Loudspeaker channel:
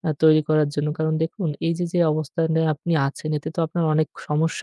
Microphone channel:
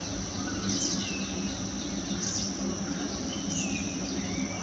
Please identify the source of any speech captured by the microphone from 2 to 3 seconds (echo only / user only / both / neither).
neither